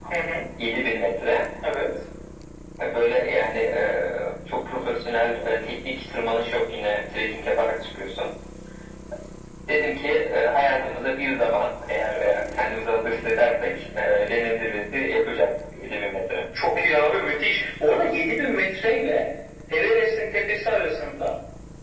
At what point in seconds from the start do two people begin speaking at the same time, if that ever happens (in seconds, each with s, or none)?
none